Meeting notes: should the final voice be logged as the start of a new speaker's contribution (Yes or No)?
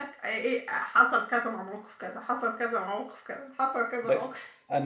Yes